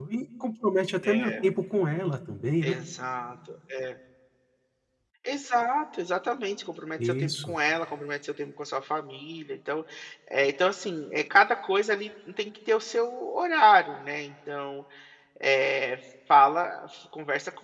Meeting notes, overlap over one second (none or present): none